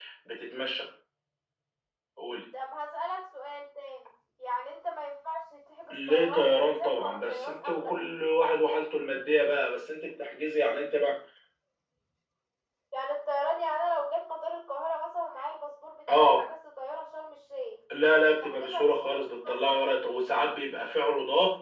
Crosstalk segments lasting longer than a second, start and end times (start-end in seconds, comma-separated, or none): 5.9-7.9, 18.4-19.9